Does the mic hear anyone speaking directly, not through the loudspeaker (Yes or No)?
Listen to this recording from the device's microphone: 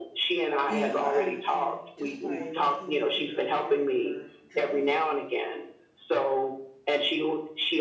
Yes